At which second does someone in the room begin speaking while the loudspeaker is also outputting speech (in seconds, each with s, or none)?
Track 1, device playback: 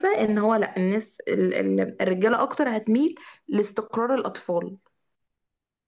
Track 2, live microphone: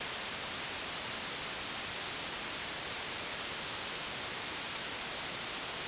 none